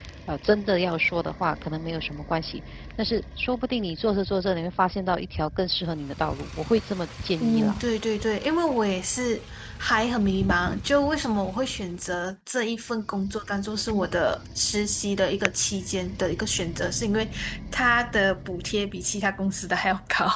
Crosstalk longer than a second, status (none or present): none